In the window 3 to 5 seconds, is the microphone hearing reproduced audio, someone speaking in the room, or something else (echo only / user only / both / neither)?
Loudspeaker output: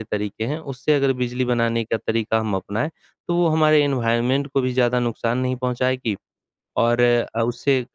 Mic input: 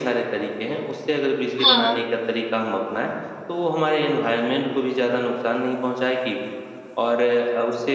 echo only